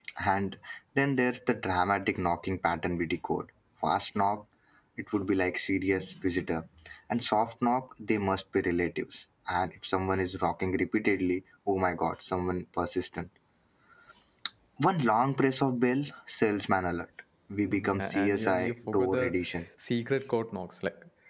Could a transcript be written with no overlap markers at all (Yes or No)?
No